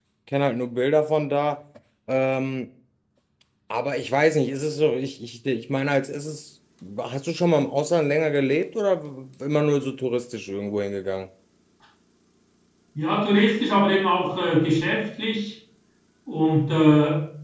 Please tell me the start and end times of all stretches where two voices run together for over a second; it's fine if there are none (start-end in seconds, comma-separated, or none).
none